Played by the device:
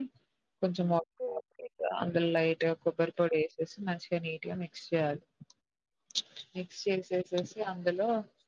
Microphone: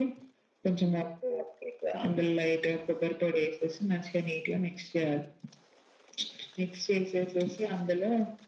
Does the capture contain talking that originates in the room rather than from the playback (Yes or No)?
No